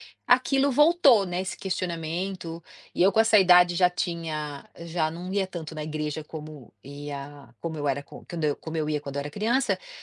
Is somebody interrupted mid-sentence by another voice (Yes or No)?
No